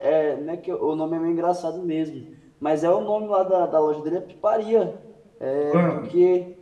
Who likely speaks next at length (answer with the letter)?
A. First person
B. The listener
A